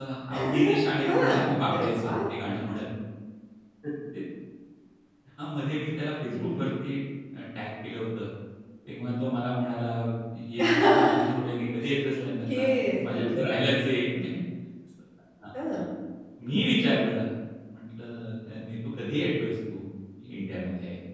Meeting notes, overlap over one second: present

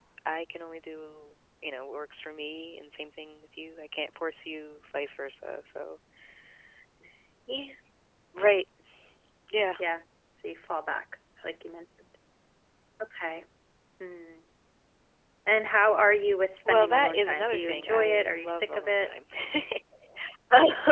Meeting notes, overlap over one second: present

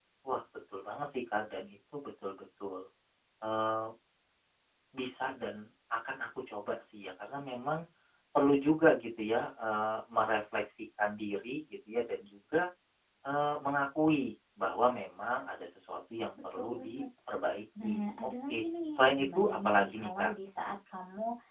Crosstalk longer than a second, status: present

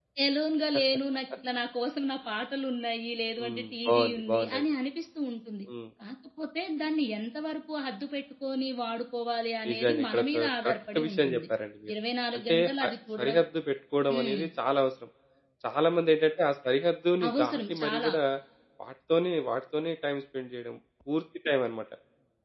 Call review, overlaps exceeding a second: present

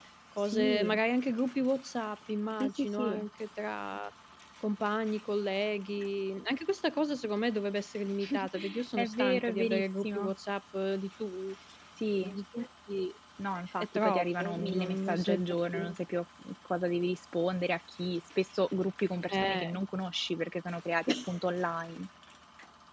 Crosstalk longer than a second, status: present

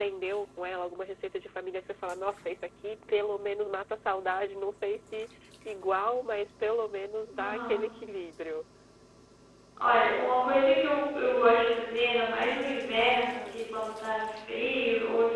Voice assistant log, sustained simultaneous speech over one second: none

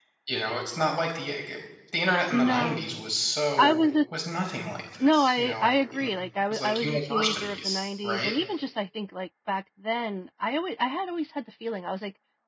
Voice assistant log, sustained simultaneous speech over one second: present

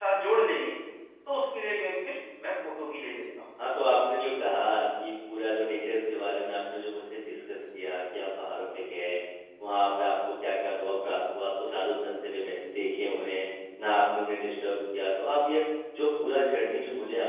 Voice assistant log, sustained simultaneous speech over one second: none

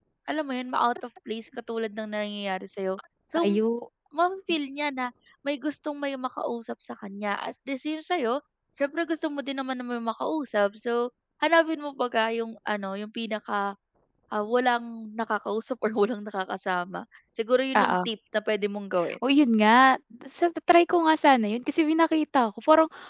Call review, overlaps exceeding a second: none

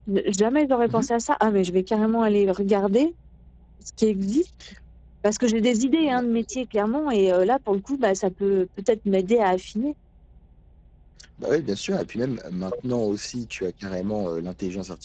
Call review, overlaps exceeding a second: none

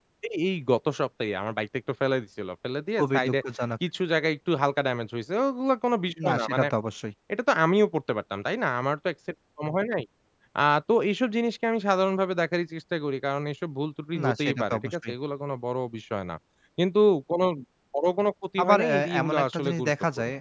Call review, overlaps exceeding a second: present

